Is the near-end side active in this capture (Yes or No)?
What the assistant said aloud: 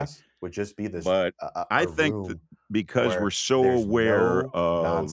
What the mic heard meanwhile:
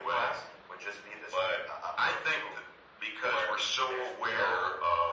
No